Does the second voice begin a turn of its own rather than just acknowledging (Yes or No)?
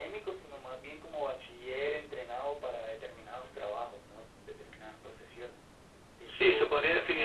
Yes